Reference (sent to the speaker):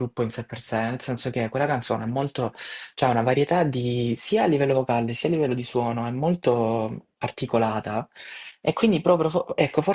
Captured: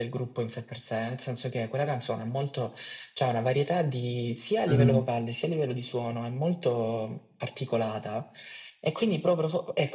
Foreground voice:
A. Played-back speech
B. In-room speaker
B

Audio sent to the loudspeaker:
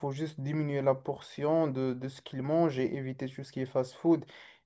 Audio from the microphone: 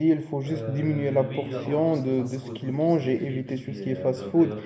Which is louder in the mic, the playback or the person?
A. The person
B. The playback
B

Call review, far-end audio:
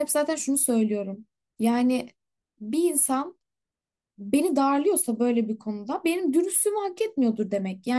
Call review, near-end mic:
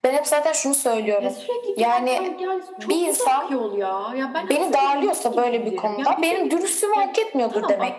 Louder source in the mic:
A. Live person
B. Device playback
B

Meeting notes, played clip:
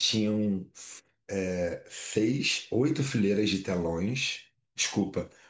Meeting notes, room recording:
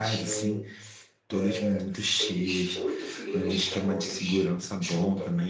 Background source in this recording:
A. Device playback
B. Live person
A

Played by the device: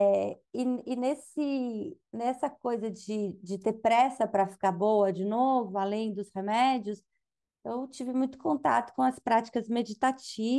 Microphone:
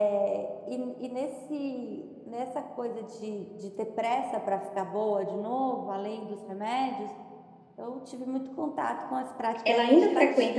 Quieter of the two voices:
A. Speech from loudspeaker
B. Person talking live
A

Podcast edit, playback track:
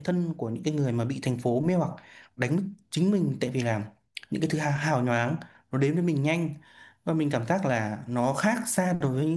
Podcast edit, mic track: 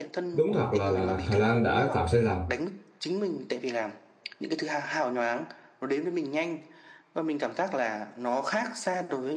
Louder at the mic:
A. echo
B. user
B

